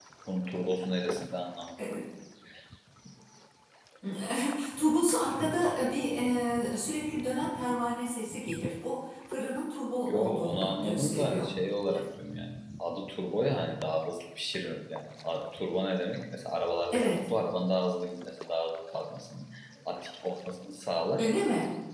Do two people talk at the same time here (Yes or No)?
Yes